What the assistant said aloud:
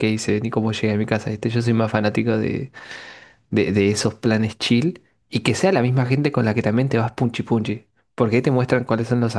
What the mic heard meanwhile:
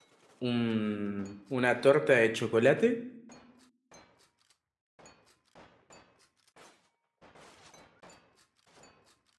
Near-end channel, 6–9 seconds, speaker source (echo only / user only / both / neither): neither